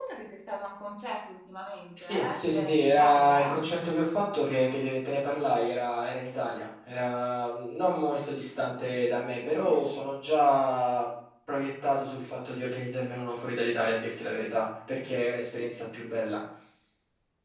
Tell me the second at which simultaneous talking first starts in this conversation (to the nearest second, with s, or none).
2 s